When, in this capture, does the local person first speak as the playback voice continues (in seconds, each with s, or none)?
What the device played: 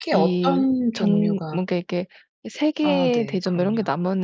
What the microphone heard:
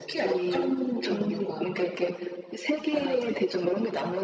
none